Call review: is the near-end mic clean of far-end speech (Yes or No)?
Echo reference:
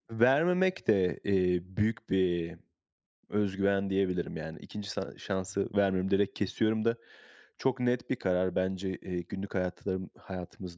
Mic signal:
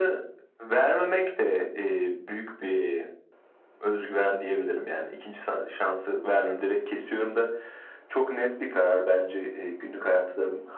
No